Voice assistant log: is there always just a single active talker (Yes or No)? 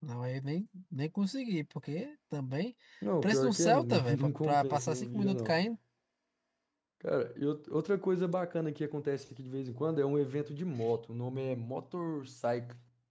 No